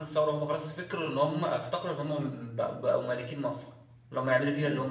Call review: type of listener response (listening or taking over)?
listening